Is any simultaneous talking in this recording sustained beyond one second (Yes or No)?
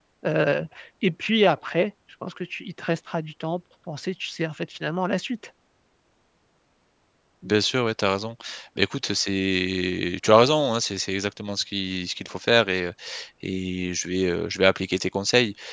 No